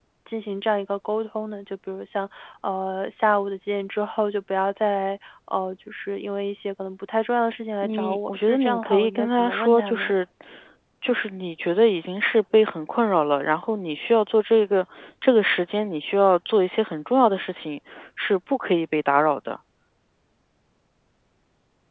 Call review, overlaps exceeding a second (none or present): present